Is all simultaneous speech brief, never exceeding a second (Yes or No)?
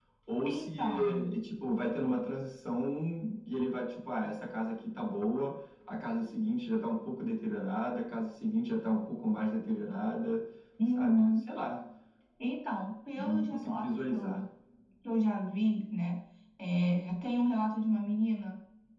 No